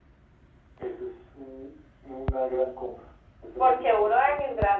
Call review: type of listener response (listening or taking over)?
taking over